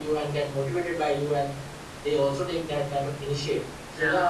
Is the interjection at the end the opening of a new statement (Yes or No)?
No